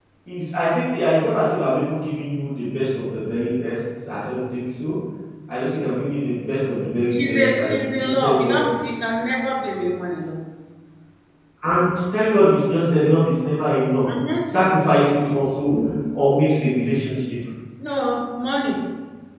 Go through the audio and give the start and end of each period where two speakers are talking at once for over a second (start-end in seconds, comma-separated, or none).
7.1-8.6